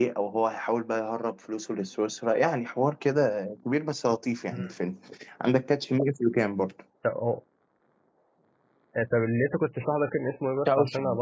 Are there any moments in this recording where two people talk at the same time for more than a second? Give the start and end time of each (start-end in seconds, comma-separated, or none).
none